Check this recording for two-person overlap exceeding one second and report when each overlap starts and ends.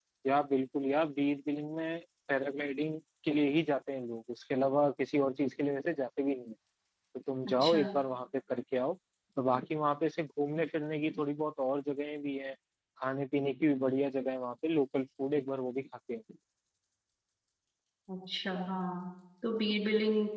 none

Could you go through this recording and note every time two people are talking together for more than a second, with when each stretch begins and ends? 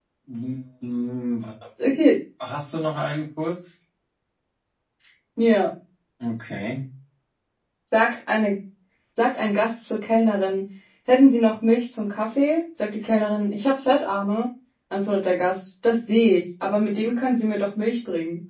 none

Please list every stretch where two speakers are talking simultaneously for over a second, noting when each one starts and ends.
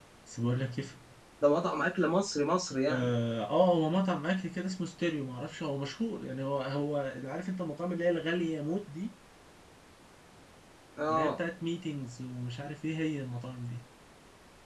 none

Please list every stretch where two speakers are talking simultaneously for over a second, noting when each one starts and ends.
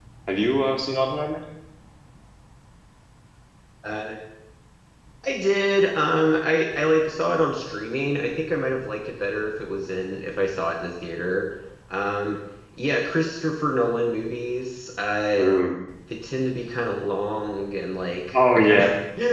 none

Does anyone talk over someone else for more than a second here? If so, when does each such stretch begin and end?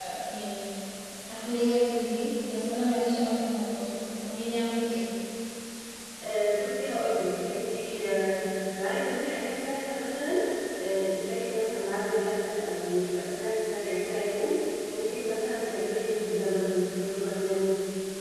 none

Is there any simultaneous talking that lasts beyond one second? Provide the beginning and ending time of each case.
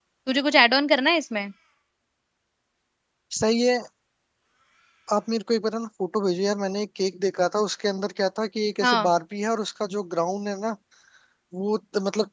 none

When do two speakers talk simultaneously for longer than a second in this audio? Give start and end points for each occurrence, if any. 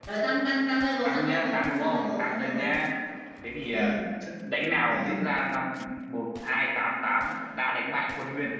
1.0-2.6

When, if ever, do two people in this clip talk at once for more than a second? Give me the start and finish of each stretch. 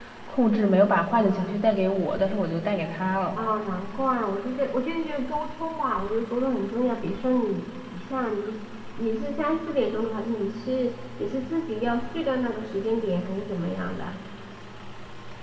none

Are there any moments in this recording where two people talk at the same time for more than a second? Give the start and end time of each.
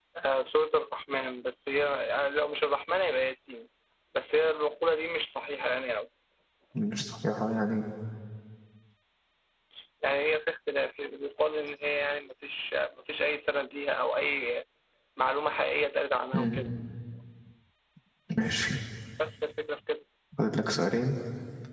none

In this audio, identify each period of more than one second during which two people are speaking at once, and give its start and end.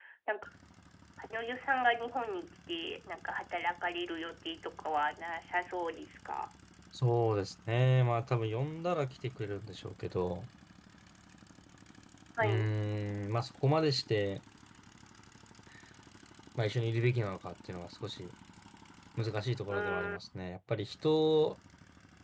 none

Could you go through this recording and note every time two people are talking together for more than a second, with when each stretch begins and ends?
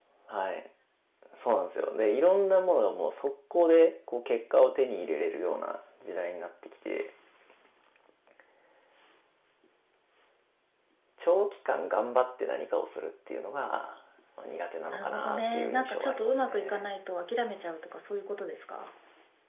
14.9-16.9

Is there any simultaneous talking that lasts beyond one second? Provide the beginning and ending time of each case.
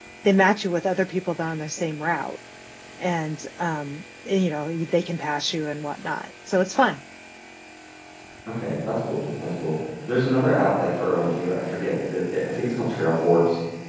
none

